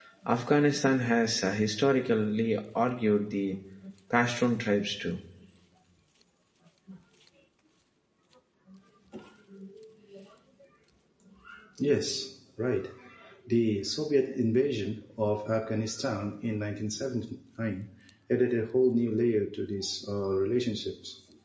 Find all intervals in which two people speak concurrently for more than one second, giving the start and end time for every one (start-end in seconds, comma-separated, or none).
none